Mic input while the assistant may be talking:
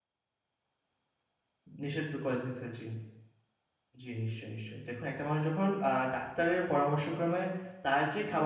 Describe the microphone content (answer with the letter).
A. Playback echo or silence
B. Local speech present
B